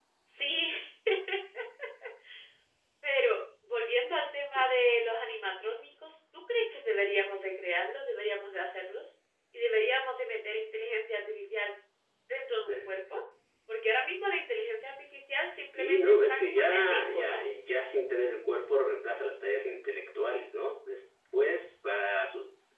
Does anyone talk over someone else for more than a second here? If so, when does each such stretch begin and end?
15.8-17.4

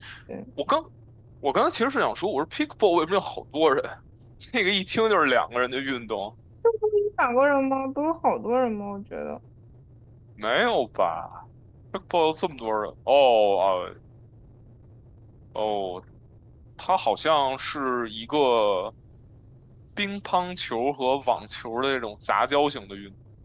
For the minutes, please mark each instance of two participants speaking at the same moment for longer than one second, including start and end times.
none

